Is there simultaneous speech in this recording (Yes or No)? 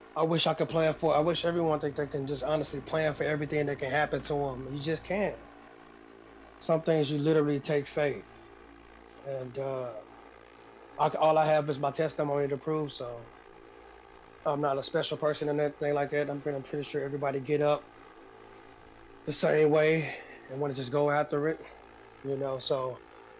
No